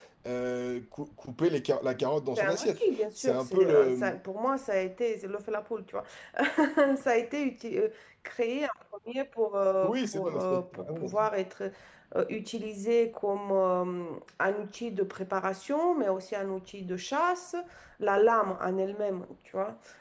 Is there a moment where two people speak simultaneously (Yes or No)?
Yes